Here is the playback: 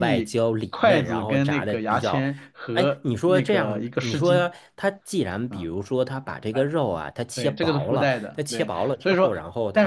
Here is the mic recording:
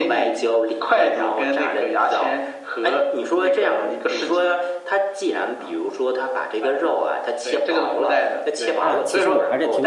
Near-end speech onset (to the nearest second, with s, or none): 9 s